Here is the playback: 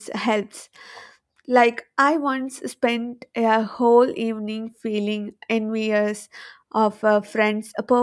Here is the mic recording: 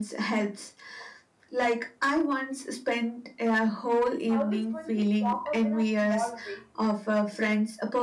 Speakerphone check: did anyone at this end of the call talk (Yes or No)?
Yes